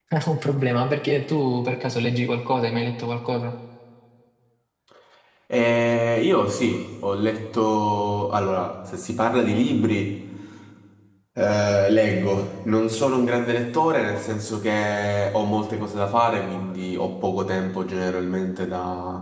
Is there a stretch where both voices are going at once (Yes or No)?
No